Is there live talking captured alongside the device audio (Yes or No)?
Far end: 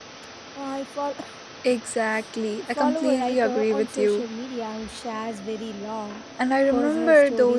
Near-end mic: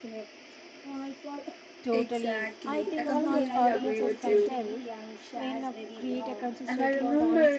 Yes